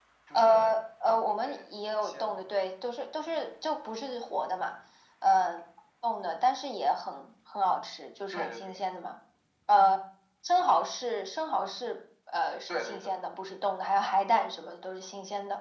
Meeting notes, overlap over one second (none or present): none